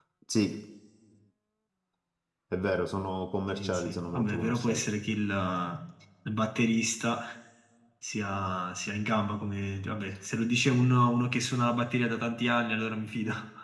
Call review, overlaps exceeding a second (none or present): present